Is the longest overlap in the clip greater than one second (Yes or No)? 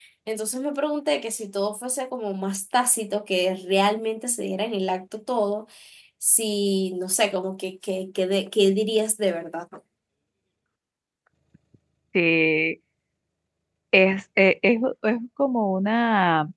No